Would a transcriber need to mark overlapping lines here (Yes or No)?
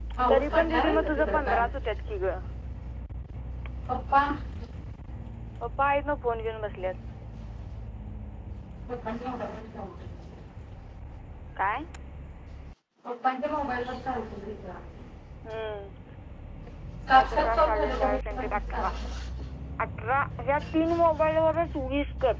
Yes